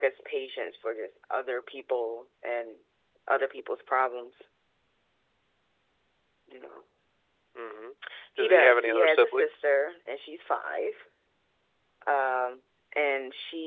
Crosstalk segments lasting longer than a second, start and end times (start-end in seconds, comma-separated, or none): 8.4-9.6